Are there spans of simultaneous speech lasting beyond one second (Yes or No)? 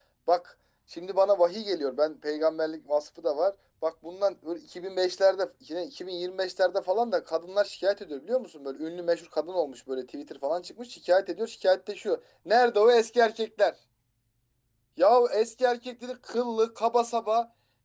No